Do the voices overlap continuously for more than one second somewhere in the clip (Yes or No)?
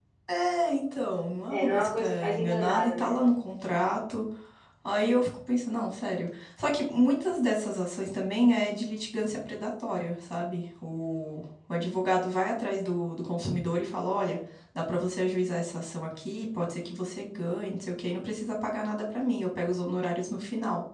Yes